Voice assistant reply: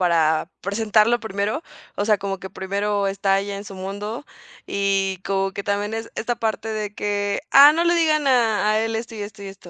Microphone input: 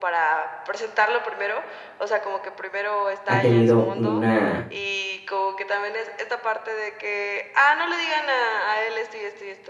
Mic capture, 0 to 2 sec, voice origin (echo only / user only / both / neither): echo only